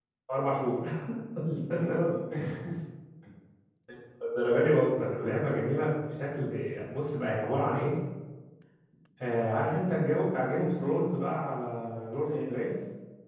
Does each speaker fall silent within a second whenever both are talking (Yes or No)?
Yes